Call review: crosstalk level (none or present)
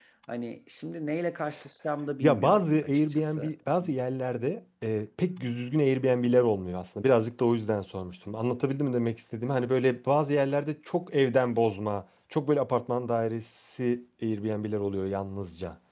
present